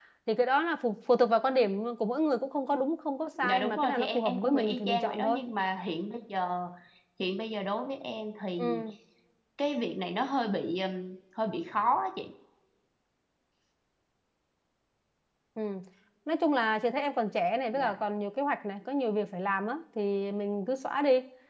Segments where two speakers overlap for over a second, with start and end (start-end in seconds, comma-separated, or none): 3.5-5.4